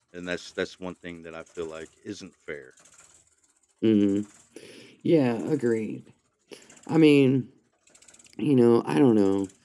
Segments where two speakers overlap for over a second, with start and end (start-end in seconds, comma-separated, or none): none